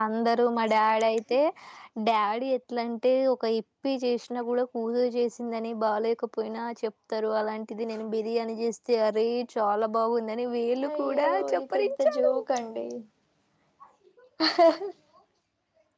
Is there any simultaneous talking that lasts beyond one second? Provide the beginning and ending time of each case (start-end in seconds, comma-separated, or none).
10.9-12.3